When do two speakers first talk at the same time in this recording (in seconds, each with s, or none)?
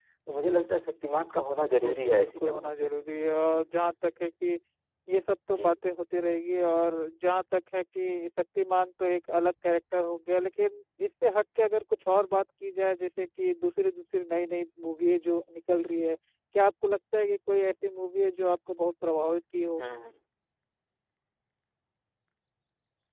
1.6 s